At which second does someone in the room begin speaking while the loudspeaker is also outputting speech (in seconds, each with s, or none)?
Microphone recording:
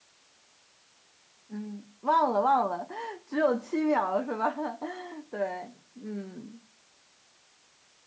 1.5 s